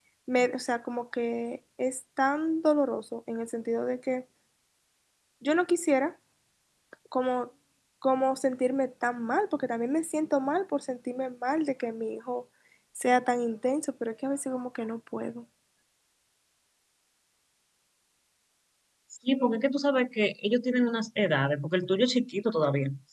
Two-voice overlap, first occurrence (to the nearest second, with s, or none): none